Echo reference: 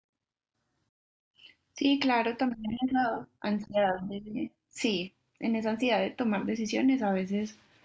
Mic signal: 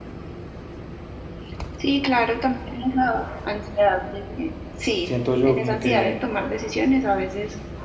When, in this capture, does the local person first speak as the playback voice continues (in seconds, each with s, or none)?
5.0 s